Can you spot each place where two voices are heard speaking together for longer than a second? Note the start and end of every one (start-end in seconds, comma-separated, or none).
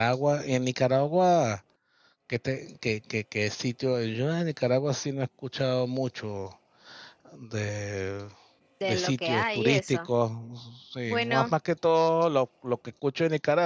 8.8-10.1